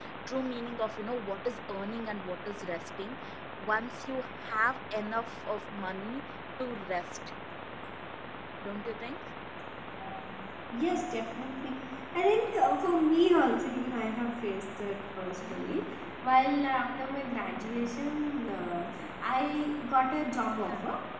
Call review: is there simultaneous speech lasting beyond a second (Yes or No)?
No